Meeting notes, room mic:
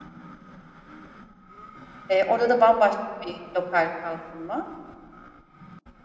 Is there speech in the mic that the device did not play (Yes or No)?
Yes